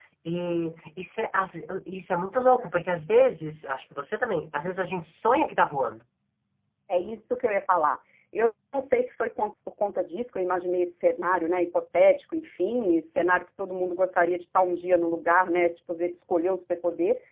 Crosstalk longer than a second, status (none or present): none